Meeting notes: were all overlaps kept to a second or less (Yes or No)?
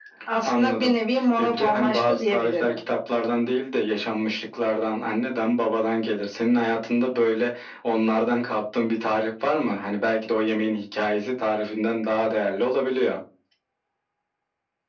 No